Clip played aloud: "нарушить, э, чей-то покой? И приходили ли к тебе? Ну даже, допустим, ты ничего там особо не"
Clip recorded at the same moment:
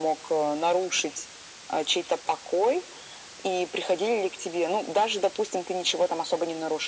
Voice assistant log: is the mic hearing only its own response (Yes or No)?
Yes